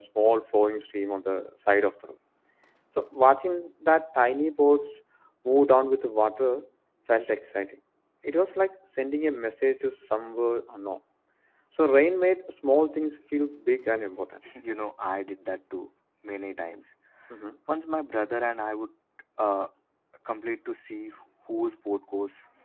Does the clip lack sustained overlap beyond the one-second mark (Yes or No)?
Yes